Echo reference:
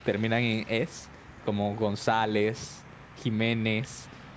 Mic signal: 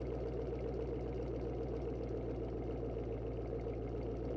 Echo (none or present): none